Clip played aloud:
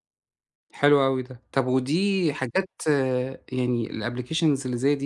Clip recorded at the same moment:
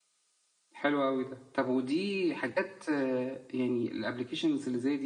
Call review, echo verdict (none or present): present